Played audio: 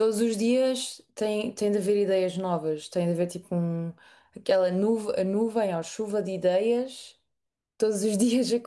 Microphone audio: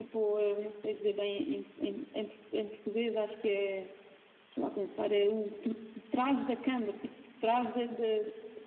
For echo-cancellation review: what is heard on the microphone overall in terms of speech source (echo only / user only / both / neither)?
user only